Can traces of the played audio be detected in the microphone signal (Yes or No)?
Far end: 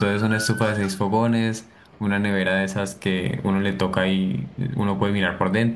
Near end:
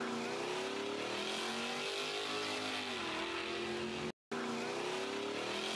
No